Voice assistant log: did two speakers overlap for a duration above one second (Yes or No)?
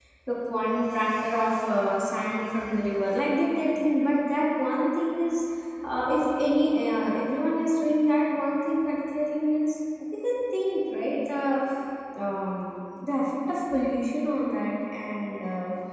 No